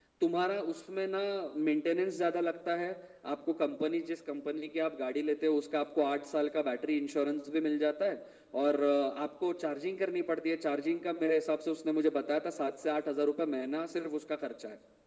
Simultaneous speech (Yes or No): No